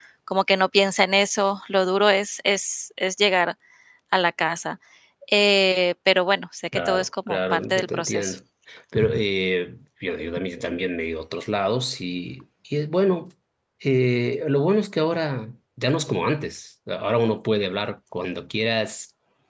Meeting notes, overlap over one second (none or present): present